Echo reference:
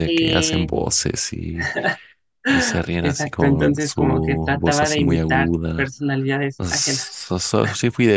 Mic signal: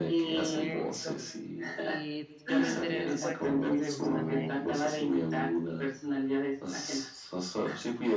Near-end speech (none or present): present